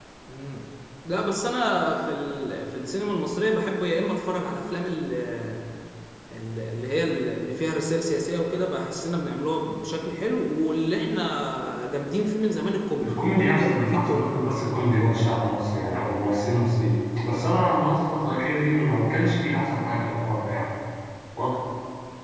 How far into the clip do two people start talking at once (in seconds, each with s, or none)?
13.0 s